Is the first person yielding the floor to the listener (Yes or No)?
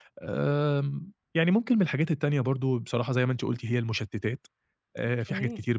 No